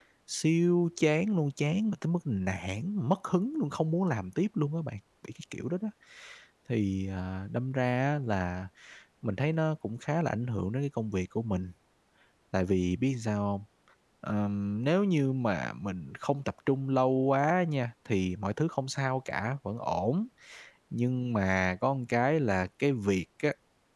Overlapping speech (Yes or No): No